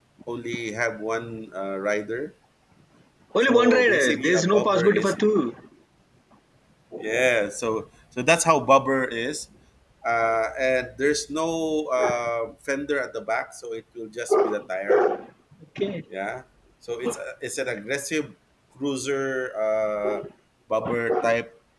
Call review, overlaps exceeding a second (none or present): present